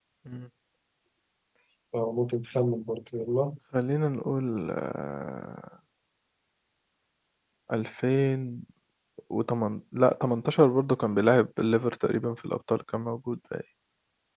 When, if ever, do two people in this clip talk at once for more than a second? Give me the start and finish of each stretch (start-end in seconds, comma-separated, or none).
none